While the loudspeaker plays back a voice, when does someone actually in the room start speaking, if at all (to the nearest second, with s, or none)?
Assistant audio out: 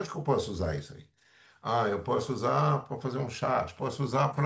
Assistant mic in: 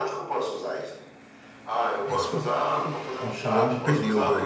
2 s